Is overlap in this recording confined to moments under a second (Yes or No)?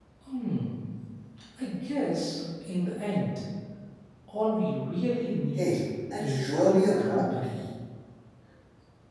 No